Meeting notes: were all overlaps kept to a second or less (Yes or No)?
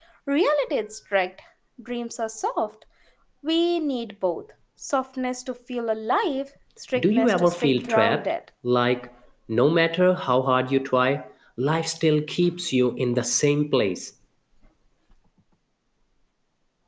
No